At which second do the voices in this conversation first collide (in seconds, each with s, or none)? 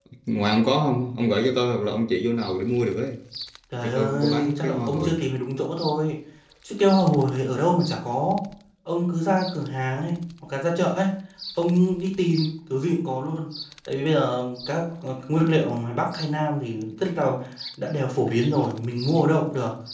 3.8 s